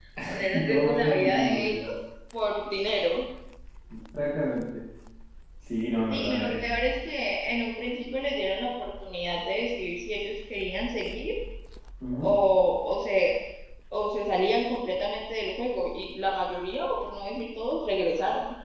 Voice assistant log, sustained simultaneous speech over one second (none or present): present